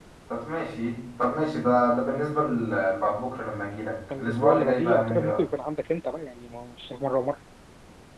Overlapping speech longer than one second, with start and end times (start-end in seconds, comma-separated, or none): 4.2-5.4